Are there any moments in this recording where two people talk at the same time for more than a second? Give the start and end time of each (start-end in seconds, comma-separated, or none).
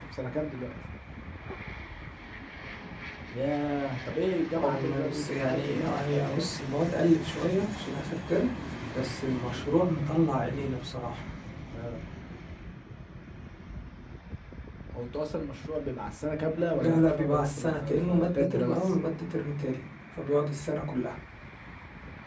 4.5-6.5, 16.7-18.8